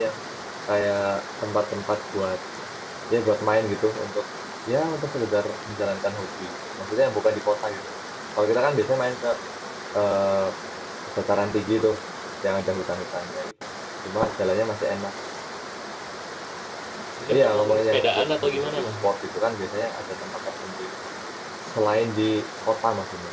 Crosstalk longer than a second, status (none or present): present